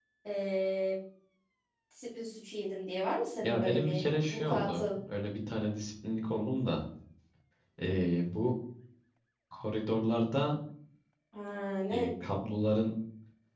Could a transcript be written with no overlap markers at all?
No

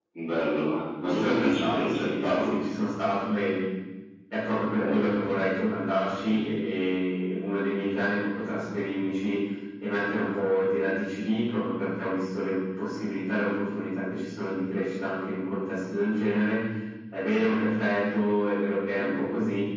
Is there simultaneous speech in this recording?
Yes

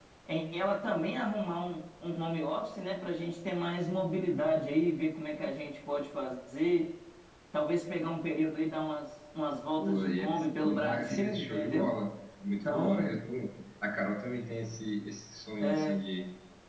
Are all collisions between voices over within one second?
No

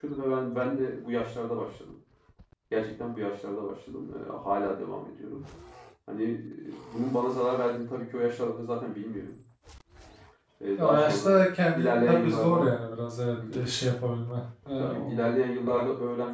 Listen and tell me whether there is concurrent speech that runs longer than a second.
Yes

